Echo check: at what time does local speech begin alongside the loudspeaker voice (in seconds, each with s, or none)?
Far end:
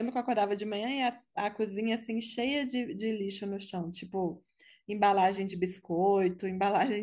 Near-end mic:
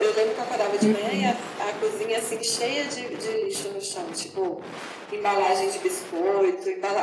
0.8 s